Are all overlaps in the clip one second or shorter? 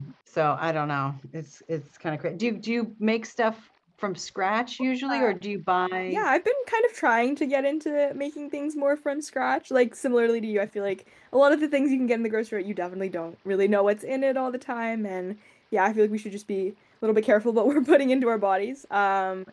Yes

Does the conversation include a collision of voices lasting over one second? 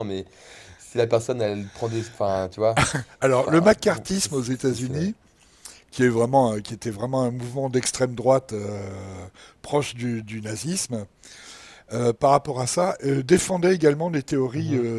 Yes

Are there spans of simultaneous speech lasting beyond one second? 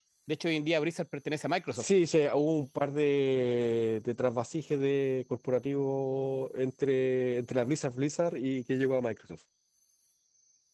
No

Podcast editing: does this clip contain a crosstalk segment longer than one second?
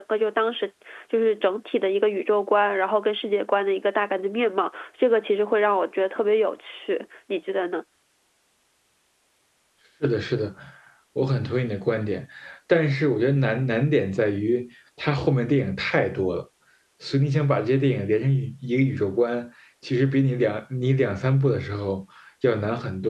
No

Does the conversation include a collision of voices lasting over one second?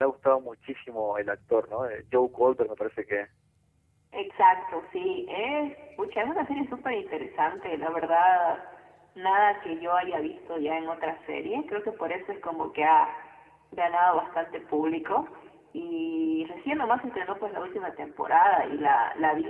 No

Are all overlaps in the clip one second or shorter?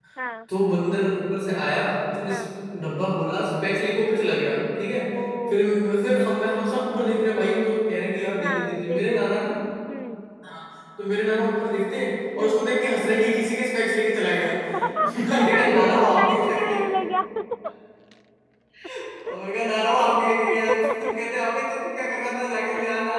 No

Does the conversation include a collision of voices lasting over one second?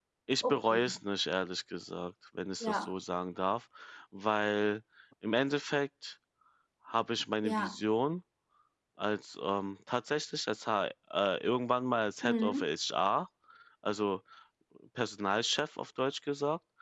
No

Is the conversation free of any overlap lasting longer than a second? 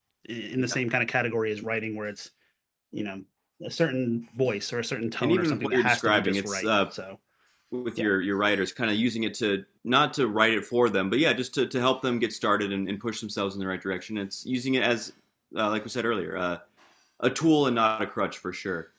No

